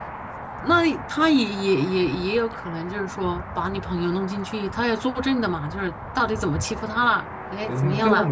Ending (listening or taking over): taking over